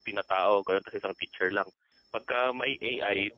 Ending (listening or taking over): listening